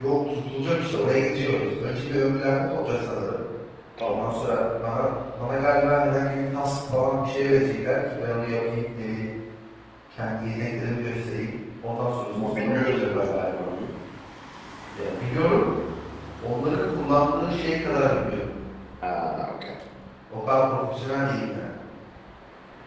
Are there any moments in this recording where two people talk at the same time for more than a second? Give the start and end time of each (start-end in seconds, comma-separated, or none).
12.4-13.7